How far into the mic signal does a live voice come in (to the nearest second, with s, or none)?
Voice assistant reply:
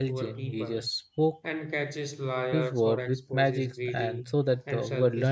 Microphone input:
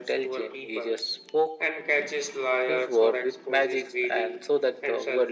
none